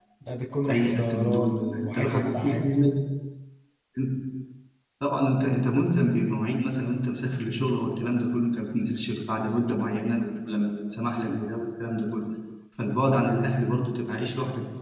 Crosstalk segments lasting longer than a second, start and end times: 0.7-2.6

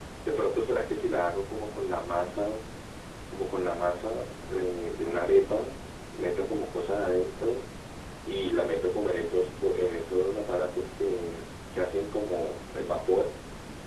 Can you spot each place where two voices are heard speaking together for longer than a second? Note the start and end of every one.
none

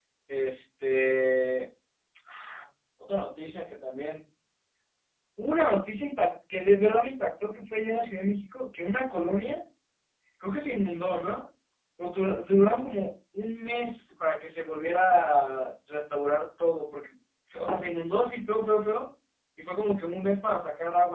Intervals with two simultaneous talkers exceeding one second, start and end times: none

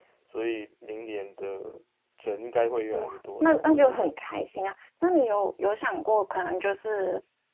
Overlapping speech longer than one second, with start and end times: 2.9-4.2

